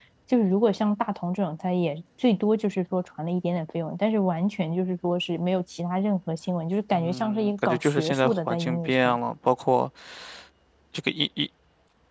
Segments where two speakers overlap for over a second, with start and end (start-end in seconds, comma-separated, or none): 6.9-9.2